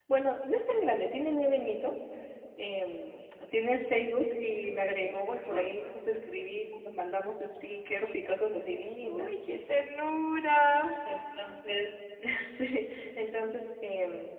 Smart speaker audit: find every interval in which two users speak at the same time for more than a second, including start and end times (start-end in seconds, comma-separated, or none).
none